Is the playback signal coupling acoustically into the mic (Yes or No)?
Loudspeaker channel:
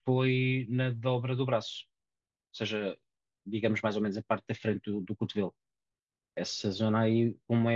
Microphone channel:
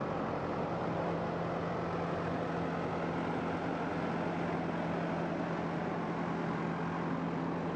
No